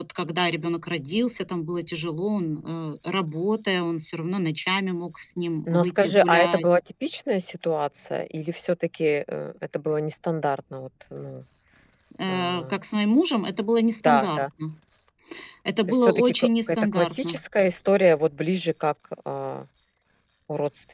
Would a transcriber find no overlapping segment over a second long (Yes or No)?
No